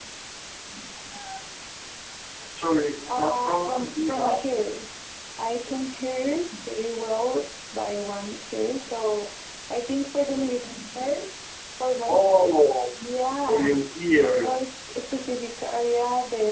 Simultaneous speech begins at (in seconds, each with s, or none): 3.1 s